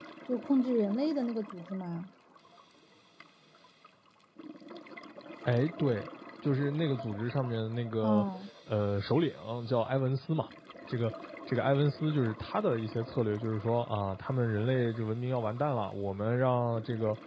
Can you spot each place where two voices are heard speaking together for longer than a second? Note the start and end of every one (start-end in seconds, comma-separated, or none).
none